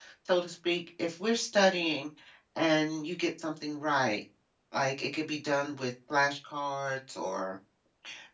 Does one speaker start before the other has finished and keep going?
No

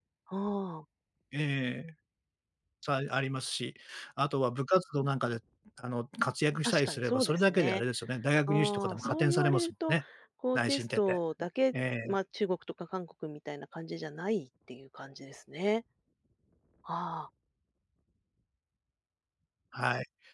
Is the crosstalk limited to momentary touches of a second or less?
No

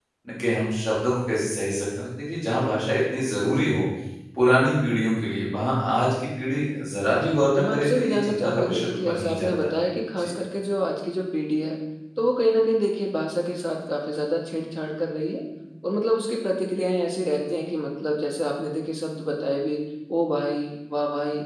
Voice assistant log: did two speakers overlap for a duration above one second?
Yes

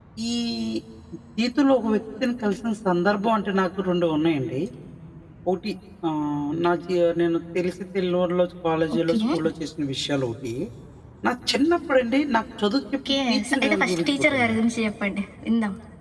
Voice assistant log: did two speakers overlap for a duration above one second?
Yes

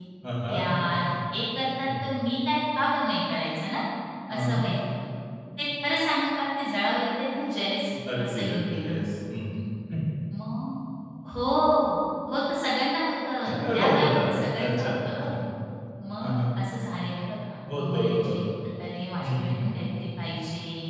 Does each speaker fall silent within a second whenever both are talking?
No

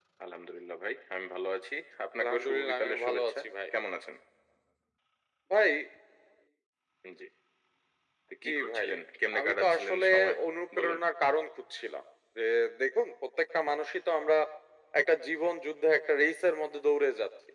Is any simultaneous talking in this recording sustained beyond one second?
Yes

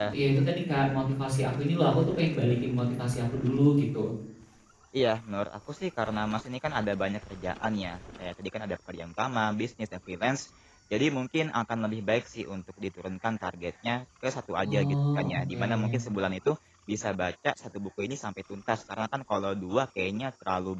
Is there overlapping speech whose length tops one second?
Yes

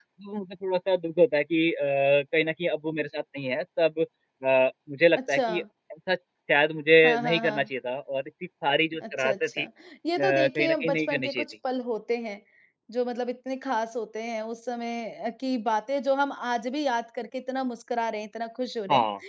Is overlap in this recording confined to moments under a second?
No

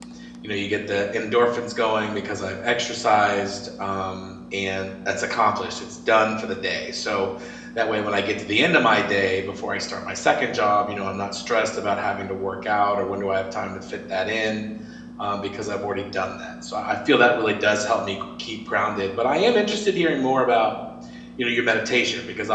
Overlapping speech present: No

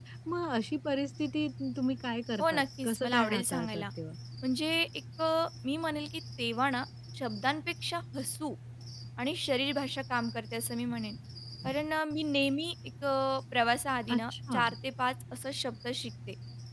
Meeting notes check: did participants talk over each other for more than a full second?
Yes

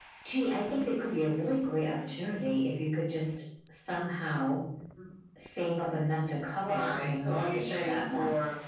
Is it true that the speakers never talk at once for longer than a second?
No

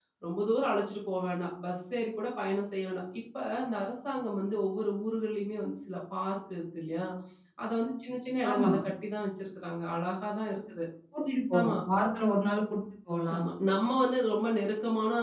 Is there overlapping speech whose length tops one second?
No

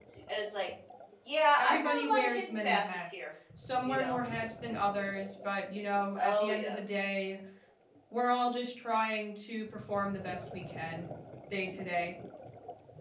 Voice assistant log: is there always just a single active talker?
No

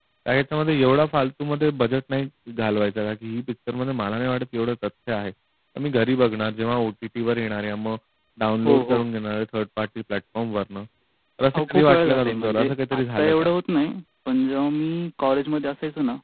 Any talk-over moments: Yes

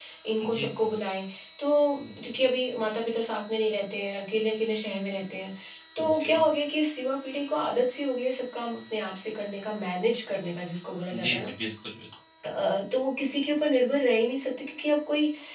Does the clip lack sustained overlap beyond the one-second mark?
Yes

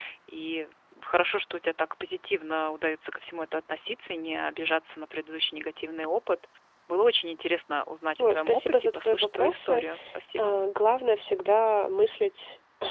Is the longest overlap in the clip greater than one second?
Yes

